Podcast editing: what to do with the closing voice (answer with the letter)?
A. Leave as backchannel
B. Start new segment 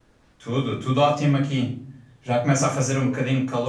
A